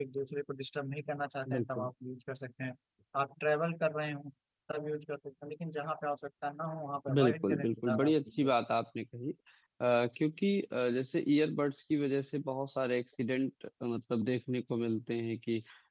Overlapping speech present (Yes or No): Yes